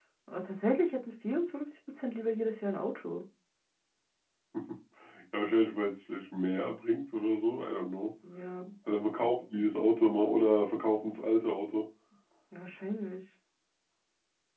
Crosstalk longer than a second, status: none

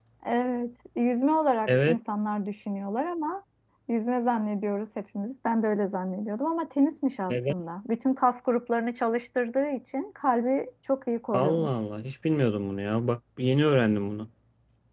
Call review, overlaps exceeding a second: none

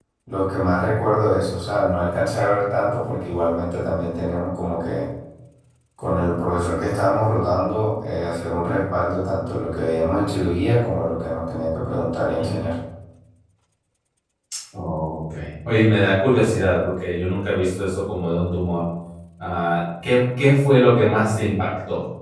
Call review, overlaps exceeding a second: none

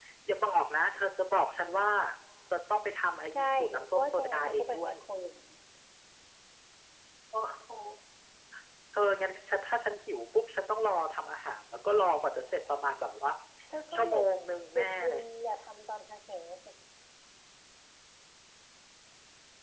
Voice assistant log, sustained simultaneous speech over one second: present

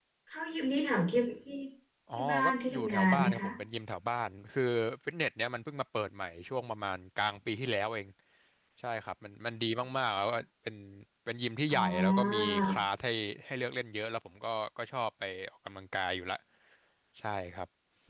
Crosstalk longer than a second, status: present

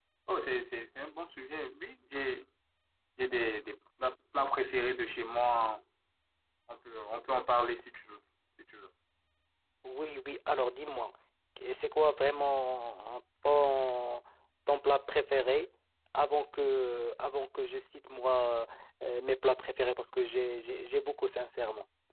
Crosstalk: none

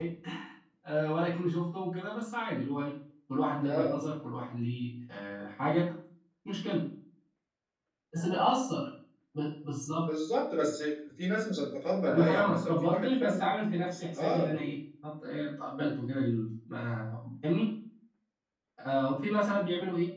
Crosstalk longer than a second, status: present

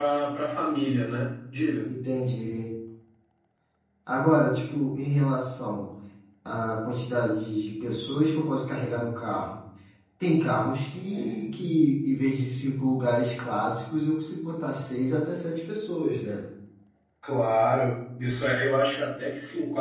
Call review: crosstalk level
none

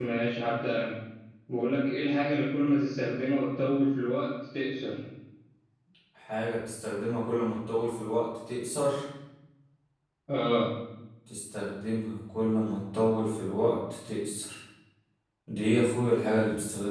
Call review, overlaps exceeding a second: none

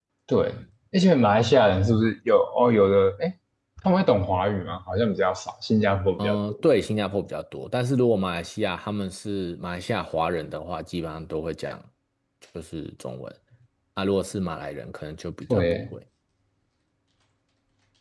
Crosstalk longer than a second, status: none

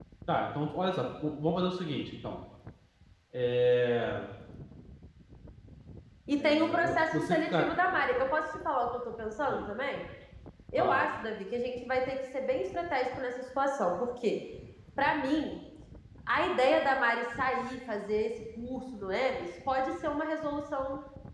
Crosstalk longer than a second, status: present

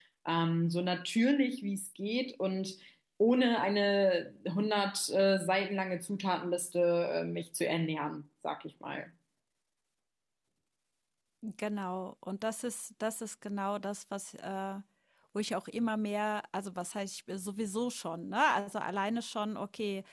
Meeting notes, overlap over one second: none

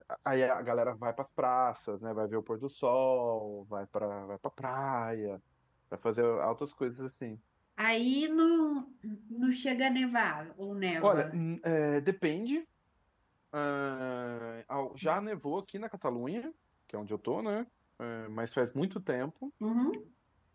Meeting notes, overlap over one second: none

